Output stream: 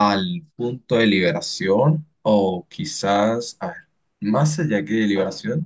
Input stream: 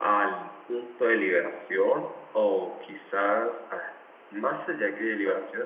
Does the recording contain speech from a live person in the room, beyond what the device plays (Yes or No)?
No